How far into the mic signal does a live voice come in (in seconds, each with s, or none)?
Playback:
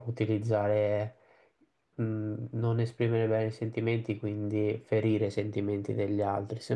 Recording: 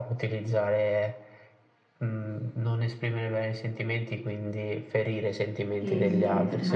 5.8 s